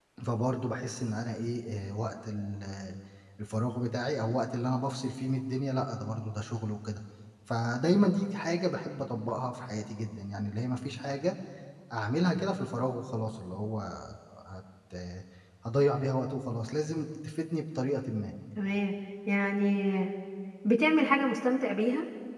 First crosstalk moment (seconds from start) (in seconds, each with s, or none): none